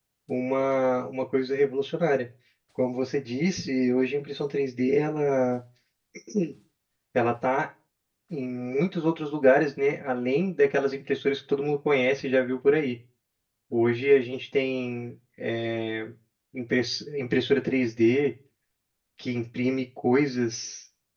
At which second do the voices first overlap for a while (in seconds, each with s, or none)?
none